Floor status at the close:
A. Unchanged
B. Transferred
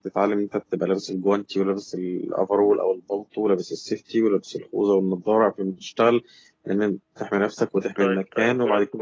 B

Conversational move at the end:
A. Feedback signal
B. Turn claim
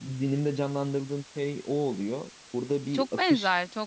B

